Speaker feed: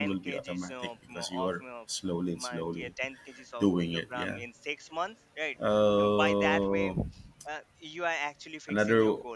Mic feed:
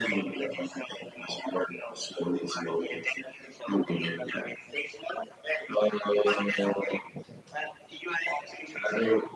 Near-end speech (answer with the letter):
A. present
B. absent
B